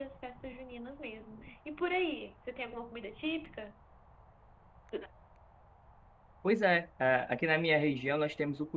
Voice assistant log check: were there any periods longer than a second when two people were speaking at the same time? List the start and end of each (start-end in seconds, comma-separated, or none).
none